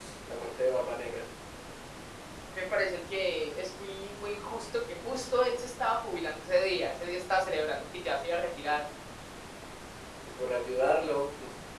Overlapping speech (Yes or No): No